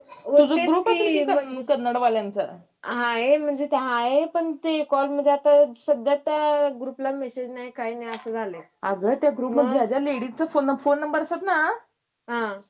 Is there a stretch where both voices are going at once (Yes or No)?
Yes